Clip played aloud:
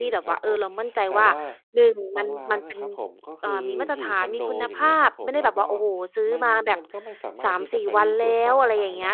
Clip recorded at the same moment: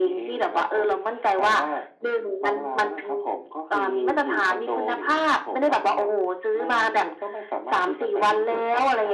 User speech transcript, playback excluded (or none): none